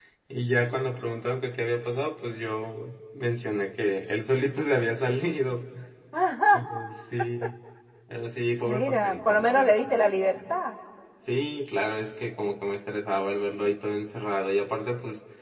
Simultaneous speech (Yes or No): Yes